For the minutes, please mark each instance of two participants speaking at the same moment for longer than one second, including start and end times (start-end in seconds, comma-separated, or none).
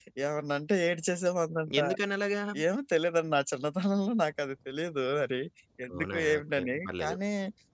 5.9-7.2